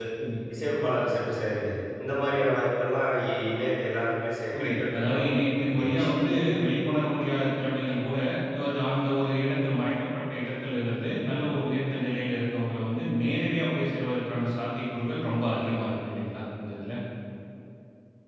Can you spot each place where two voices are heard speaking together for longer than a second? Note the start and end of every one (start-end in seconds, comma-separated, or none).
4.6-6.1